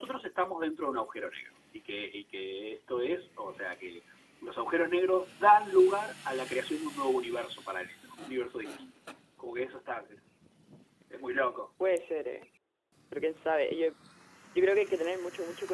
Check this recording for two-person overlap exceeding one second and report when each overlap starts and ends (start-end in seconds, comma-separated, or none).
none